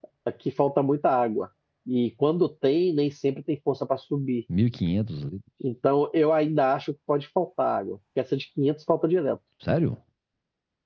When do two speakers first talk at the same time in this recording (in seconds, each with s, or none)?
none